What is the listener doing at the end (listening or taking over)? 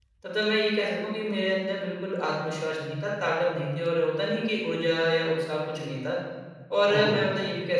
listening